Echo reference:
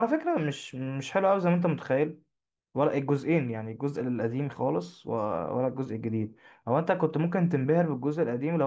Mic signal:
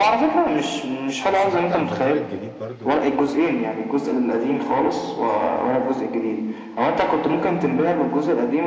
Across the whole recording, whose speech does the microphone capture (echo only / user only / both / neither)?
both